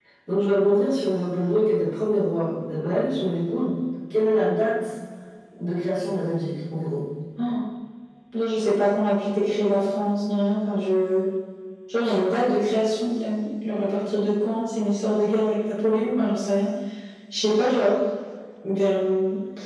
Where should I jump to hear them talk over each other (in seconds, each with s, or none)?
none